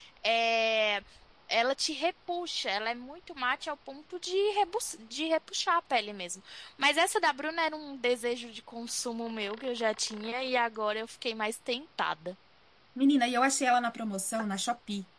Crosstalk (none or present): none